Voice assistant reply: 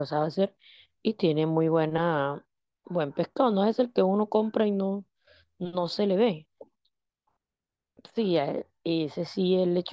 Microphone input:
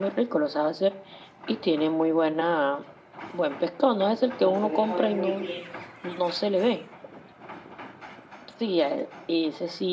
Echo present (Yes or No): Yes